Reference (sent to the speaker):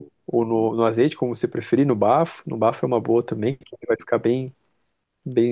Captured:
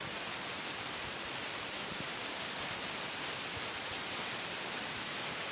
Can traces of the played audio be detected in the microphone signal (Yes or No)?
No